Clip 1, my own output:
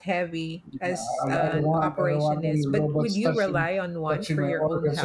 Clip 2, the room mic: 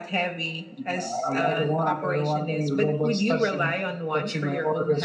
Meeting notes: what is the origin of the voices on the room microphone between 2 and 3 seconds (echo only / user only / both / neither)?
echo only